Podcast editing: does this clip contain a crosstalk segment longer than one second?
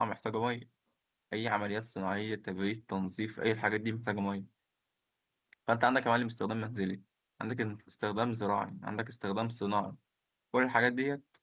No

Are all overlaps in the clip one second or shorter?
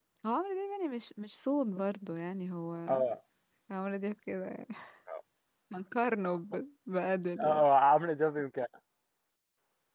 Yes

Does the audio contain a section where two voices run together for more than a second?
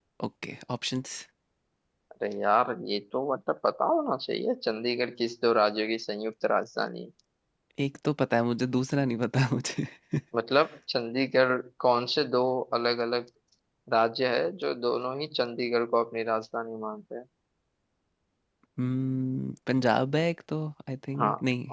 No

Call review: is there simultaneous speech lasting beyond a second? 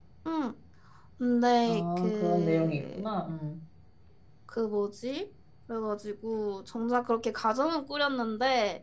Yes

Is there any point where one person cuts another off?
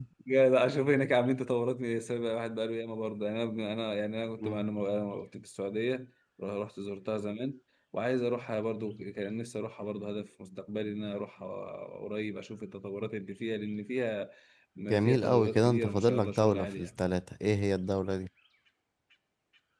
Yes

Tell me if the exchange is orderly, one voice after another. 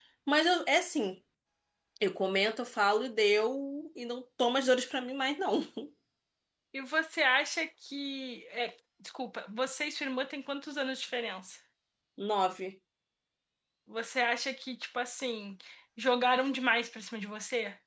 Yes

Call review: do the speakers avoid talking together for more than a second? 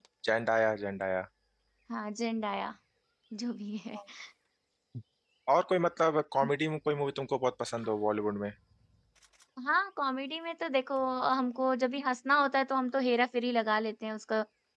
Yes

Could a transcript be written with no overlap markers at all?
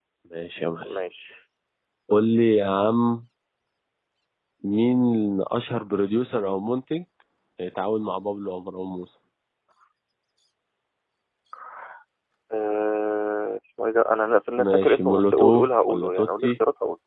No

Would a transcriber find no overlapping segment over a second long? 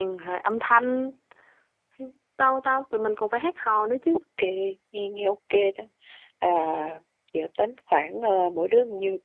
Yes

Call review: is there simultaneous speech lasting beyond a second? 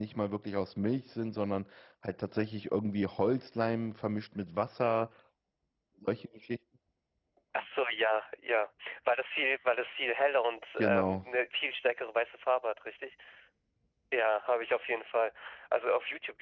No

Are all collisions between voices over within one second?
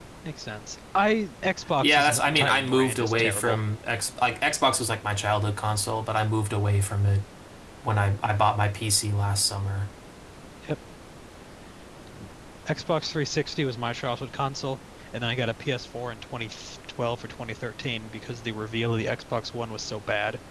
No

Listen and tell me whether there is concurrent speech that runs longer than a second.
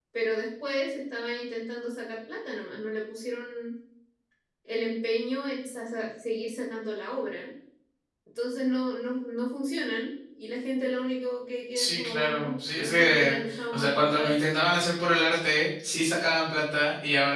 Yes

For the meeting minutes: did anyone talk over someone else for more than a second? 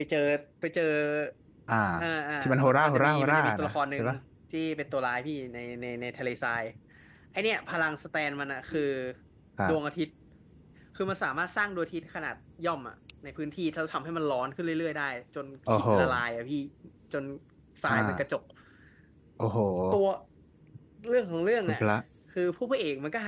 Yes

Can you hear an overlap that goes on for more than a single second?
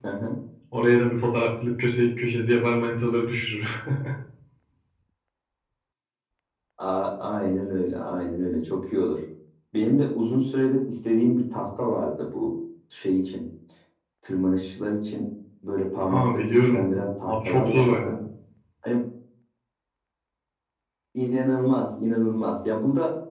Yes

